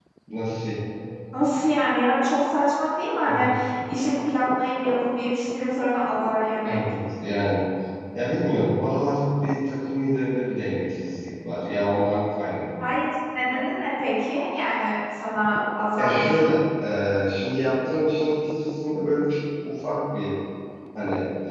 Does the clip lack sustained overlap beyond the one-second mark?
Yes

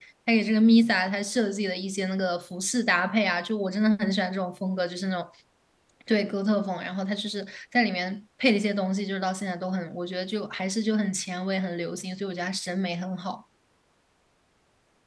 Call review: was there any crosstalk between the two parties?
No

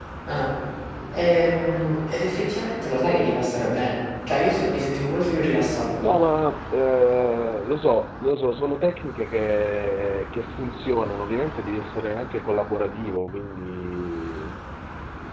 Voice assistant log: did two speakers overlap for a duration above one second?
No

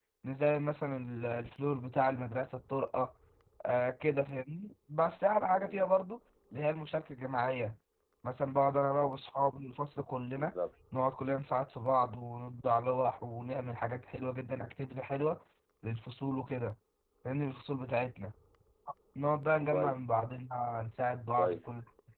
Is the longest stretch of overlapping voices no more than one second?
Yes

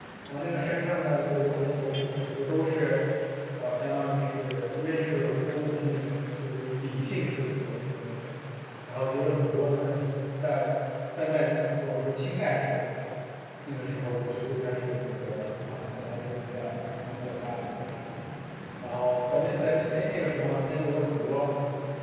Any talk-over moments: No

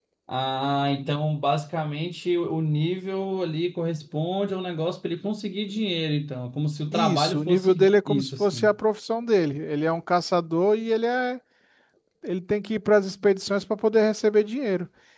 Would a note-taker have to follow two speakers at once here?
Yes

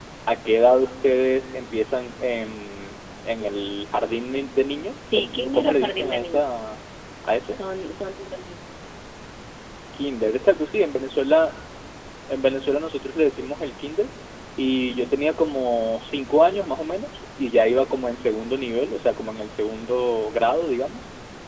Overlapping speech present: Yes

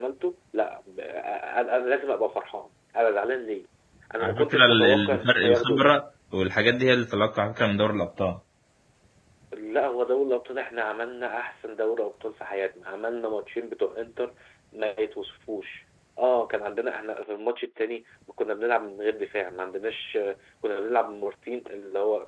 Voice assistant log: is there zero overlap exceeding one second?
No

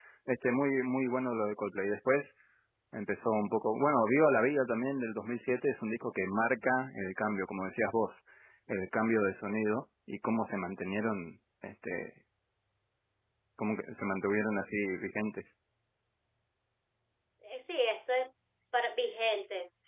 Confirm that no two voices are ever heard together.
Yes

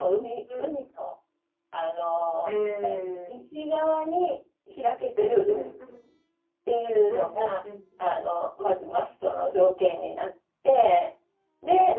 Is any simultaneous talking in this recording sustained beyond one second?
No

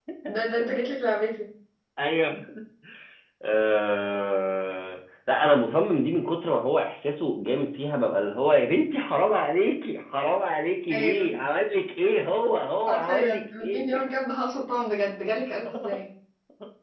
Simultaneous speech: Yes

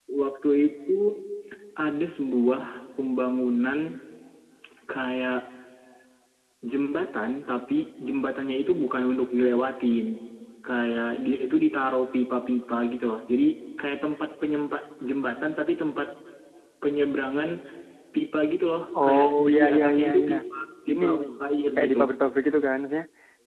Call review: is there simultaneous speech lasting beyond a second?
Yes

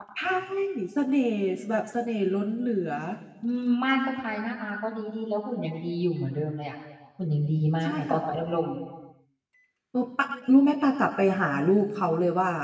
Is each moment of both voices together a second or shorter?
Yes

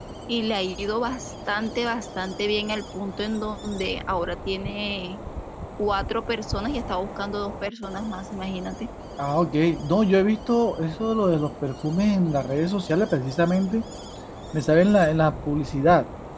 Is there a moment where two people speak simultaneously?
No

